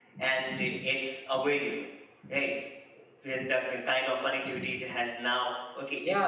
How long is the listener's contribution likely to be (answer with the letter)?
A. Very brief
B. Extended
B